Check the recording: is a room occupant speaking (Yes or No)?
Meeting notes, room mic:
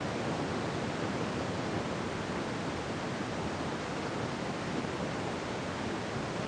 No